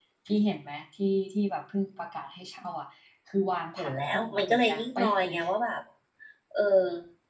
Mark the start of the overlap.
4 s

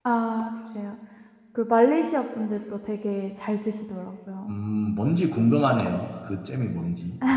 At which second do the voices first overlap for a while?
none

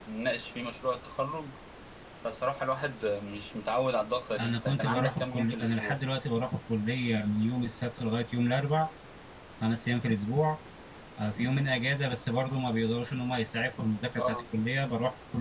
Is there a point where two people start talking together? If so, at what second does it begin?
4 s

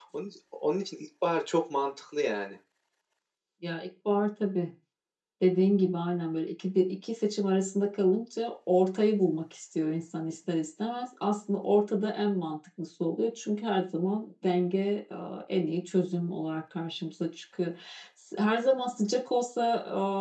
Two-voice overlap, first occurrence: none

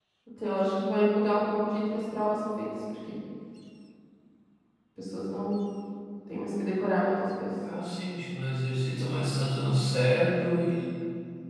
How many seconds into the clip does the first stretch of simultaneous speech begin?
none

